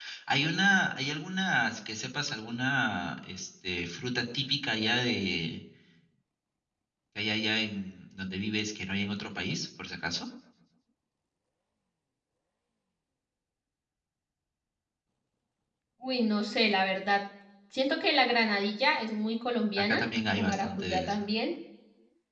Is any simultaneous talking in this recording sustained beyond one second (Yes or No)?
Yes